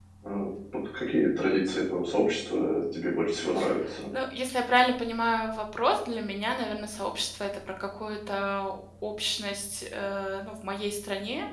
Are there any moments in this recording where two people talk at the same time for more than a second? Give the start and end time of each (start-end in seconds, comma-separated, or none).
none